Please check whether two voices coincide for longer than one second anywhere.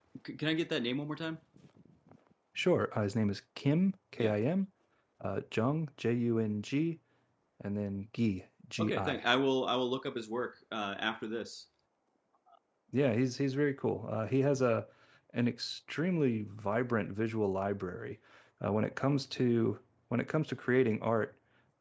No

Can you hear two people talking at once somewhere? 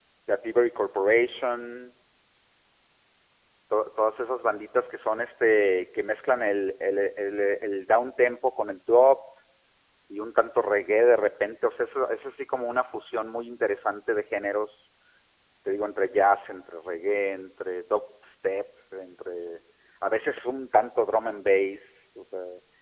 No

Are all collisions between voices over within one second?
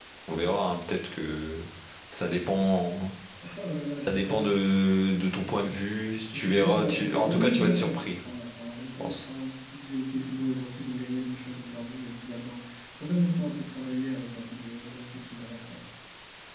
No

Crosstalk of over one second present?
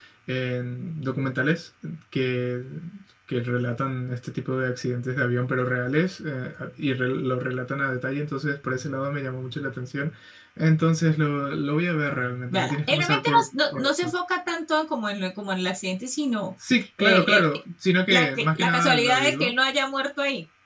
Yes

